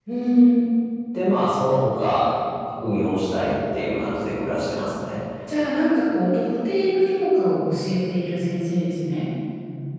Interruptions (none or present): none